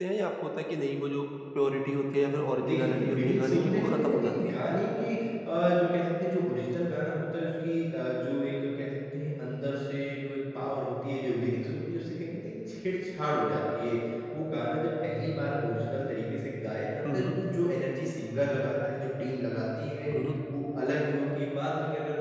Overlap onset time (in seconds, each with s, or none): 2.6 s